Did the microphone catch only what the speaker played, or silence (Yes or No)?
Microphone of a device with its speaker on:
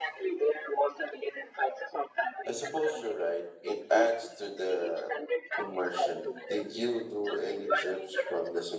No